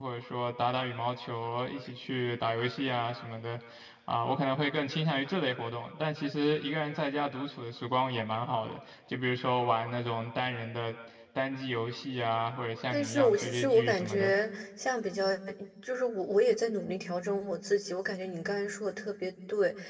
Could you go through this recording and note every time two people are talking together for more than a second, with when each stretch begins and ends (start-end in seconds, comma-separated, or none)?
12.9-14.3